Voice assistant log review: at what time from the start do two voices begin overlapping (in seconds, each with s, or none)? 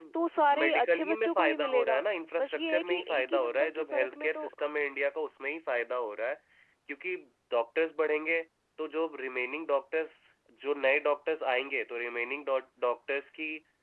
0.6 s